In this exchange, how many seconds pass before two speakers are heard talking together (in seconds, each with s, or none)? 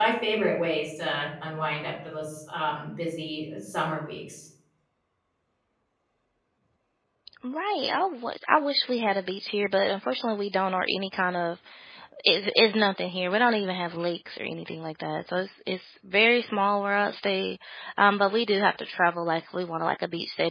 none